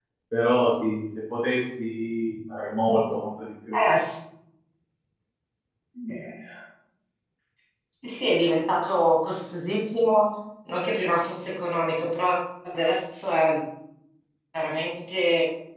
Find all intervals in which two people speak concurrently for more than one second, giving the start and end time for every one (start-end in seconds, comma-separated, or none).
none